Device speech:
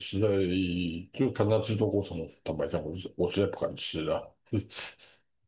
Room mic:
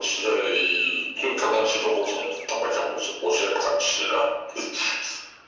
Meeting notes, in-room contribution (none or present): none